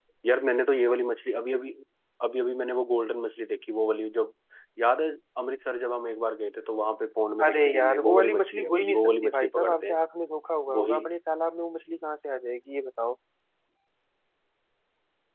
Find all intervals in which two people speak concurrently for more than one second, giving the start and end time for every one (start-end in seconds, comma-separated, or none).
7.4-10.0